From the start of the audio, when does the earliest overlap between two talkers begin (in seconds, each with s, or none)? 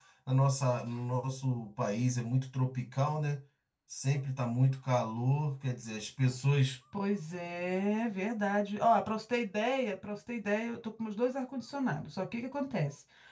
none